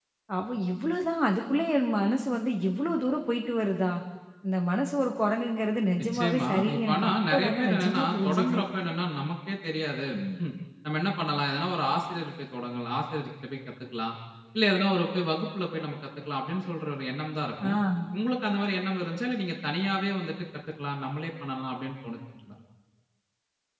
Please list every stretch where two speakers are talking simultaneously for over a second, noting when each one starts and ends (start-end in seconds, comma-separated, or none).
6.0-8.6